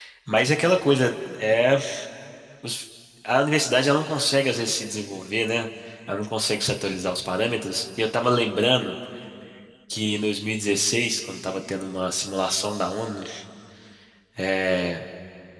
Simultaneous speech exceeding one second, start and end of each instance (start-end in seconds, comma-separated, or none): none